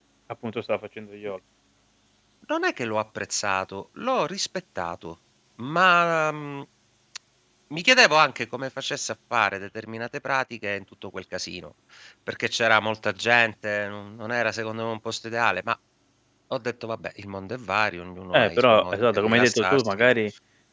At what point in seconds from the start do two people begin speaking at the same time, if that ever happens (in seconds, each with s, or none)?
18.3 s